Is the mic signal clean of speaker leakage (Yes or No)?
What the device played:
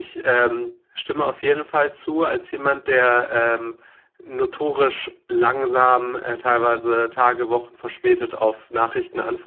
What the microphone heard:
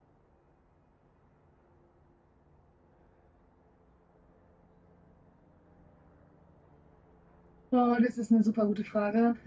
Yes